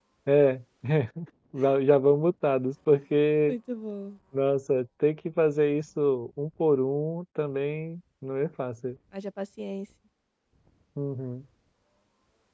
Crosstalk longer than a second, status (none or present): none